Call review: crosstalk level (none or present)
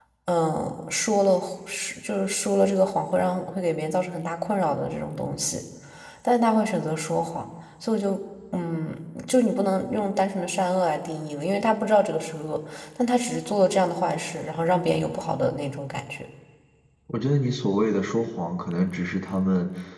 none